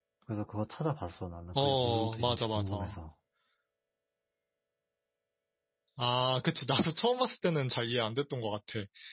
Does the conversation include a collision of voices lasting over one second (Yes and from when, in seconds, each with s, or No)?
Yes, from 1.6 s